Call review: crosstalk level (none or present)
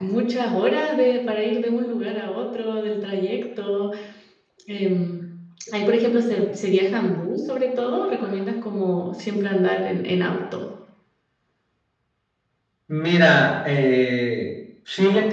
none